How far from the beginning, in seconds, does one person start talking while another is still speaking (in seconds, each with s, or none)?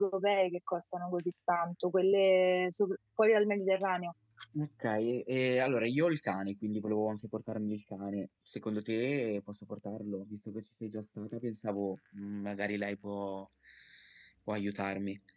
none